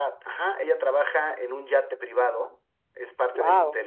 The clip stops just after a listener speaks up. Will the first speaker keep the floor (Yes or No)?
Yes